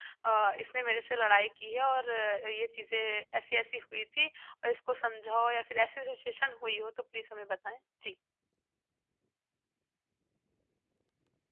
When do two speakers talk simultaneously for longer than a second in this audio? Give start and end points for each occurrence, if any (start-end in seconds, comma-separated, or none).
none